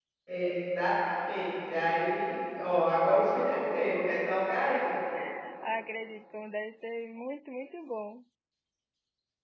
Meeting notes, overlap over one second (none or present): none